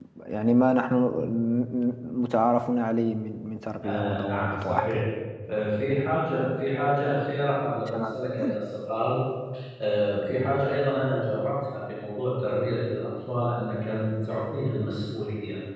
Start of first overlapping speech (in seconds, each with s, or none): 3.8 s